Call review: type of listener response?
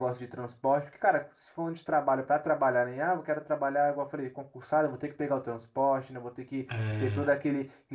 listening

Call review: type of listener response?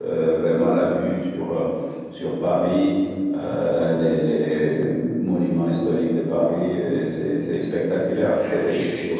taking over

